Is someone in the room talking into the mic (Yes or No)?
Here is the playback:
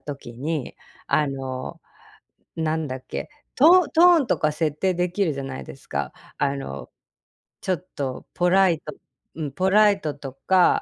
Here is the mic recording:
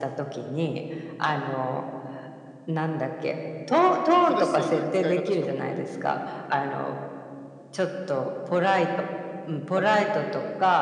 Yes